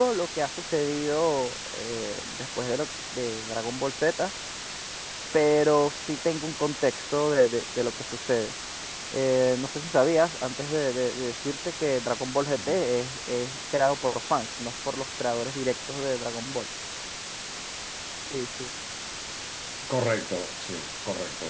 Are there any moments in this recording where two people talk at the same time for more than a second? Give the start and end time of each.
none

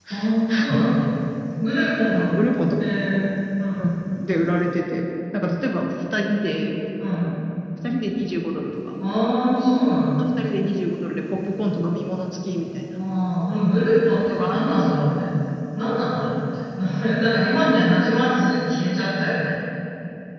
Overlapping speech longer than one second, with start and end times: none

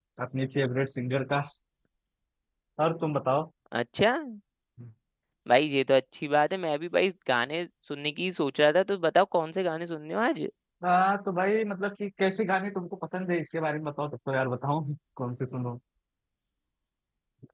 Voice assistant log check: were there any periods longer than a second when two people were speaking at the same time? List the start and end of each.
none

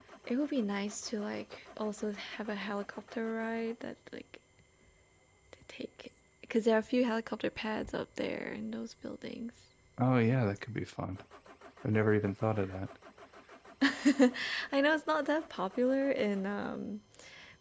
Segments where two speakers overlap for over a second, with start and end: none

